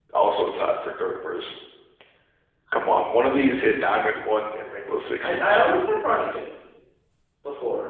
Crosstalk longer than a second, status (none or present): none